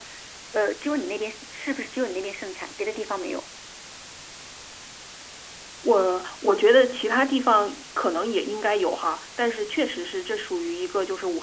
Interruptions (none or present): none